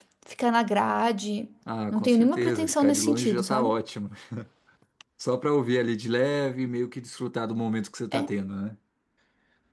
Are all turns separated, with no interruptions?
No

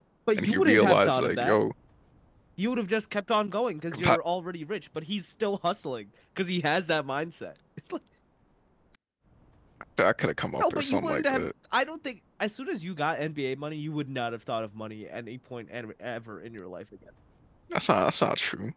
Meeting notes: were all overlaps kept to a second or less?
No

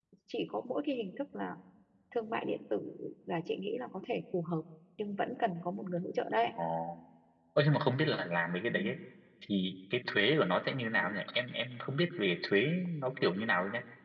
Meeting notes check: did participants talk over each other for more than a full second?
No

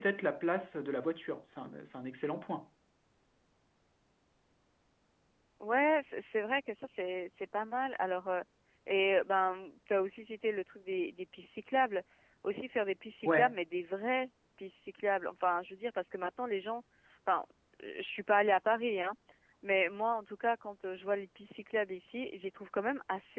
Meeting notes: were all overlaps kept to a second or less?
Yes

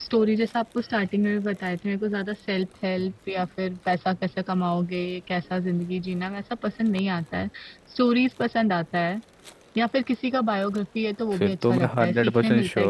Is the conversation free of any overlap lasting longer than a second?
No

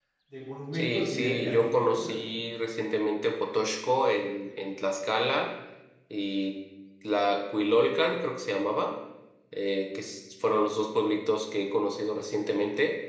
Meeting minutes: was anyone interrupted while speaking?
Yes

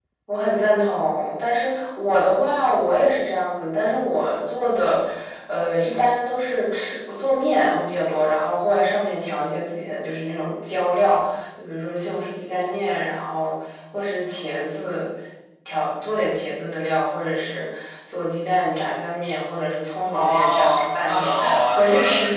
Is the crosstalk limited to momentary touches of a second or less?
No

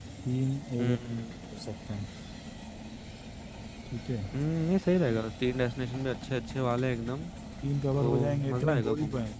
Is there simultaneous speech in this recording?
Yes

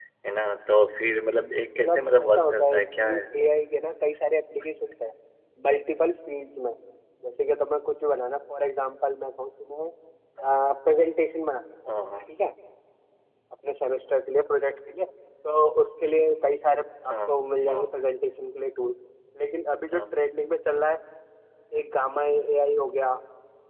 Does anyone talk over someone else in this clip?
Yes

